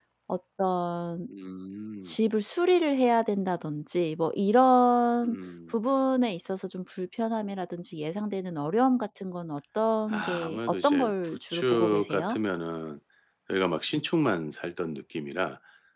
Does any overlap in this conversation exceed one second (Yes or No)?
Yes